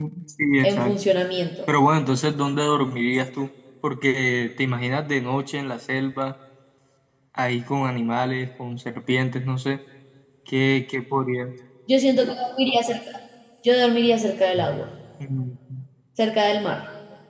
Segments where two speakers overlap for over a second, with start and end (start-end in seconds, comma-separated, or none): none